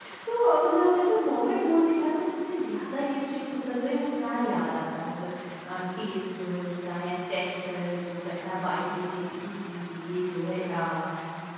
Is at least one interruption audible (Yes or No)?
No